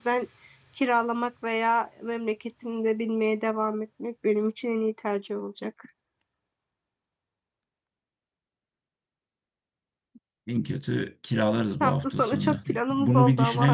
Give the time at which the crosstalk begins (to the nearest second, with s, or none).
12 s